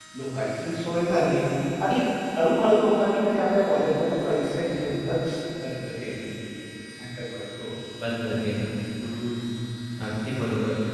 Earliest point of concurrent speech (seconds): none

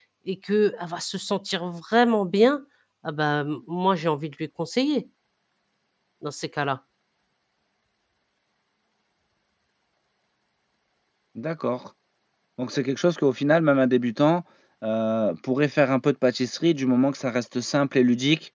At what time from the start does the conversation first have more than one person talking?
none

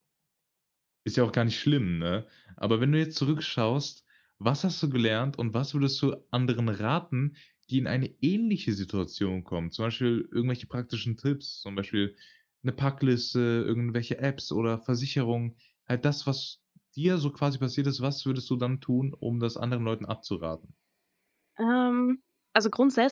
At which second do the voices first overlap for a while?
none

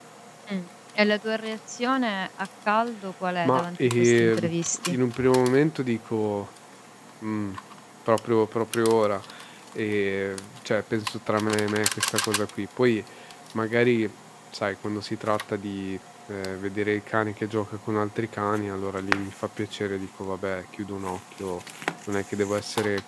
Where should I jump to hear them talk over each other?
3 s

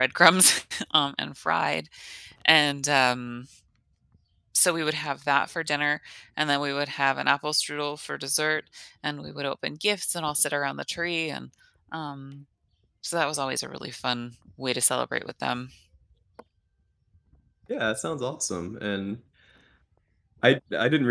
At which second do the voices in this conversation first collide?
none

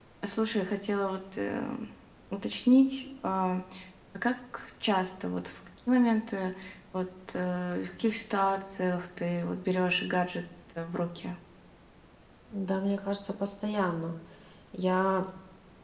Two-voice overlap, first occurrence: none

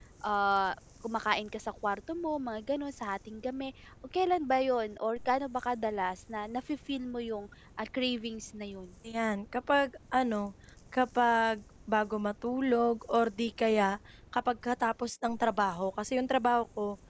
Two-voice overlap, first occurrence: none

